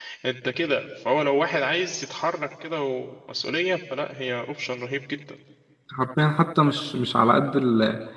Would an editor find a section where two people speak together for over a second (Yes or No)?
No